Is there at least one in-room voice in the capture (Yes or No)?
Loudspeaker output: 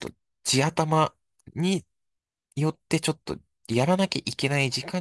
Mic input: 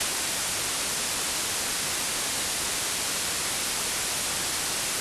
No